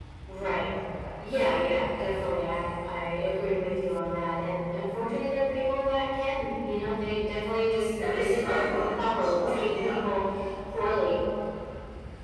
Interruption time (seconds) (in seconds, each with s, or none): 8.0 s